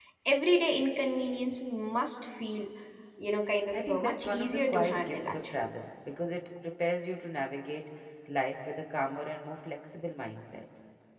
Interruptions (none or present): present